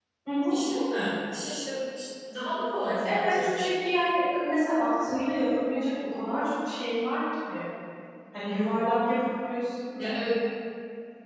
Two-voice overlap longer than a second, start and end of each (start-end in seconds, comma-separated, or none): none